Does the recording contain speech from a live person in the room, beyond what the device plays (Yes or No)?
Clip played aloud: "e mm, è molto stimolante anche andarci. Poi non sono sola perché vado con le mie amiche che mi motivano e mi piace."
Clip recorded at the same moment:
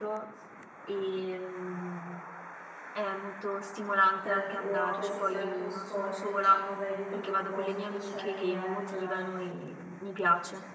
Yes